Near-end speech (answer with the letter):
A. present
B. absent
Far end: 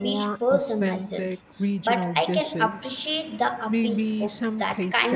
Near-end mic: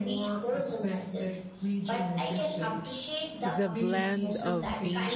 A